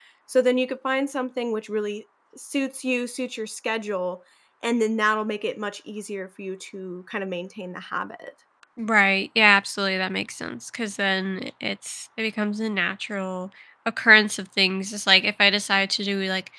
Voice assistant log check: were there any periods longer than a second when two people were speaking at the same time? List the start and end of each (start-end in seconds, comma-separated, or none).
none